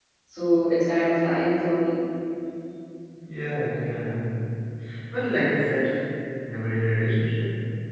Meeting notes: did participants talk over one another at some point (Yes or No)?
No